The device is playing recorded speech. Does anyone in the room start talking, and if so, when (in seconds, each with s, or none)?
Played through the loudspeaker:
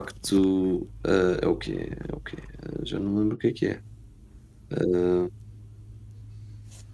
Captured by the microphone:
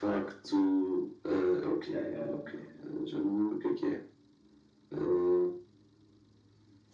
1.8 s